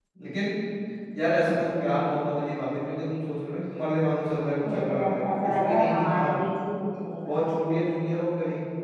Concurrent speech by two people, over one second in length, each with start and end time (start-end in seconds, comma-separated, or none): 4.6-6.4